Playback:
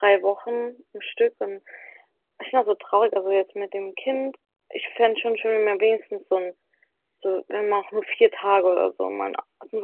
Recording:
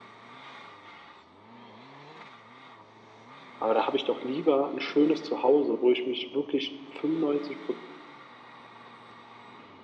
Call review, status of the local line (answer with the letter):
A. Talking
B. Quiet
A